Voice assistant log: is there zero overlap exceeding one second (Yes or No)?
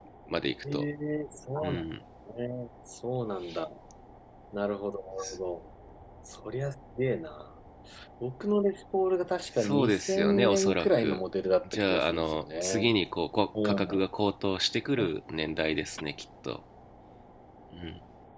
No